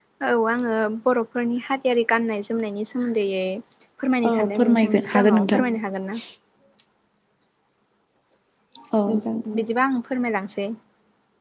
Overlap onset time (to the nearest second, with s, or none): 4 s